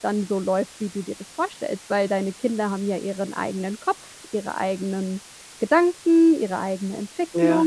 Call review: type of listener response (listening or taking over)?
taking over